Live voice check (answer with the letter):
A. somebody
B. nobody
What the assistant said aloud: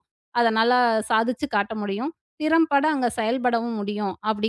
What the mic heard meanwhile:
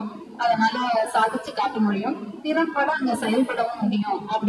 B